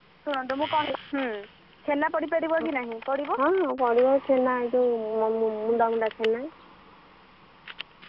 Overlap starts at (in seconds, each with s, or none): none